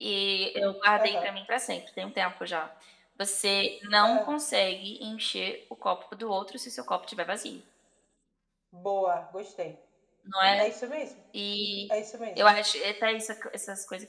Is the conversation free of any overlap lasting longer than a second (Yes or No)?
Yes